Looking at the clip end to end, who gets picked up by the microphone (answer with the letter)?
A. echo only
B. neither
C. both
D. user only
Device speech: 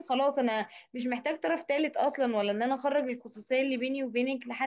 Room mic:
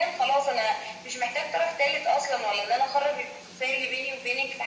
A